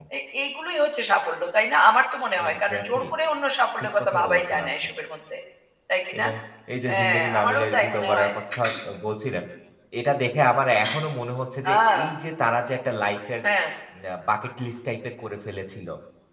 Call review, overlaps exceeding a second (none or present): present